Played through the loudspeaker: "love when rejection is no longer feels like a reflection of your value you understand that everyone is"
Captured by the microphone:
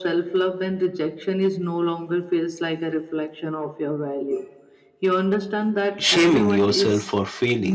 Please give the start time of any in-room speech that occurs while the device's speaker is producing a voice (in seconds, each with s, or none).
6.0 s